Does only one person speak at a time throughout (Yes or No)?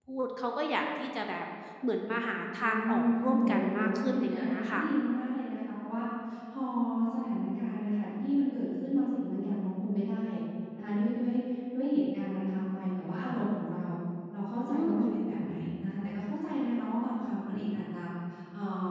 No